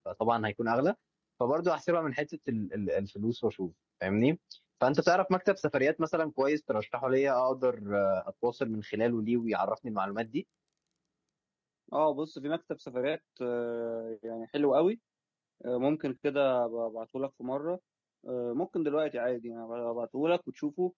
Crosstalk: none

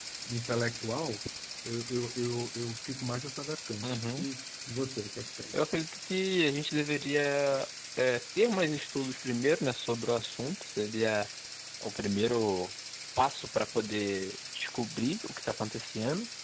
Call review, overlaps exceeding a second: none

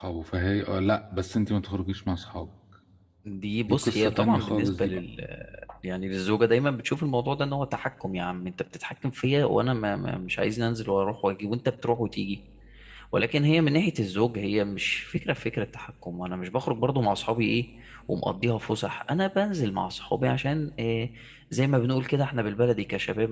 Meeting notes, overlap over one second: present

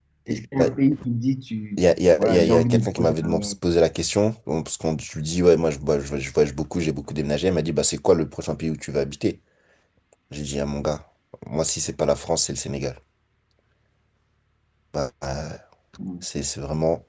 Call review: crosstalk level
present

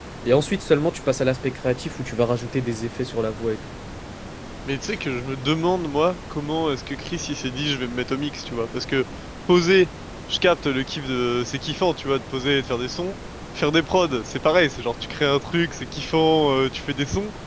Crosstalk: none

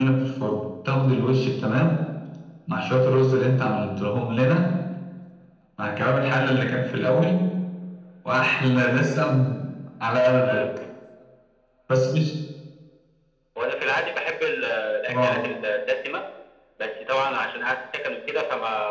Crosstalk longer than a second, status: none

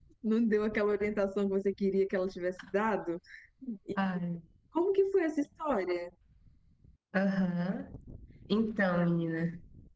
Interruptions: none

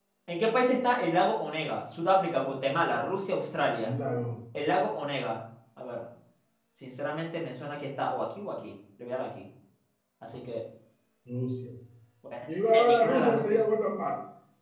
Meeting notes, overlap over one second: present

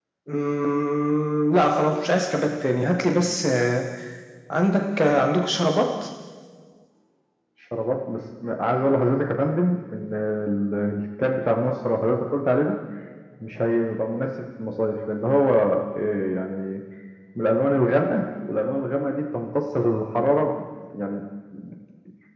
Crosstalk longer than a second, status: none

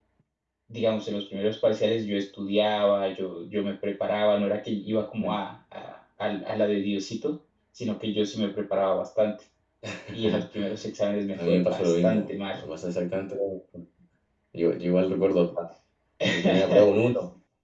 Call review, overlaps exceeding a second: present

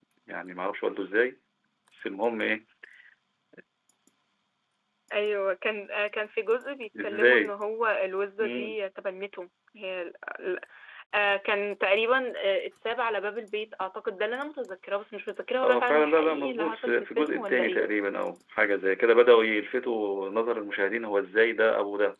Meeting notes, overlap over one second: present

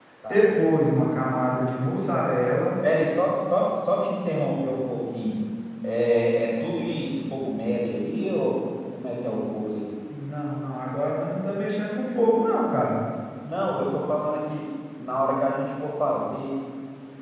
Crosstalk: none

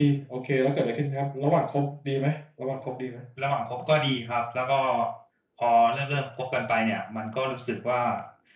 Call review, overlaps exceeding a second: none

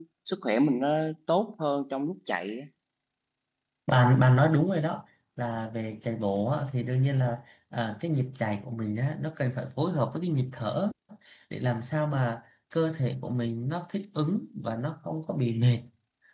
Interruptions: none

